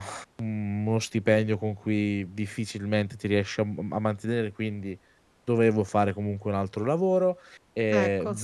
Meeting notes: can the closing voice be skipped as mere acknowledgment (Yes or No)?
Yes